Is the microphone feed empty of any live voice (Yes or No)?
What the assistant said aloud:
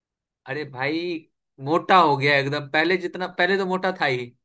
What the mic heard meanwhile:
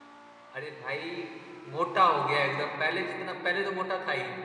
Yes